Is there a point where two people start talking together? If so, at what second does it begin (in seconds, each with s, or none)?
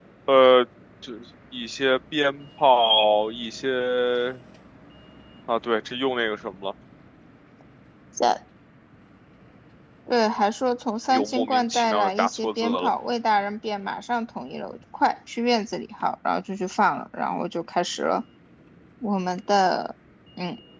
11.1 s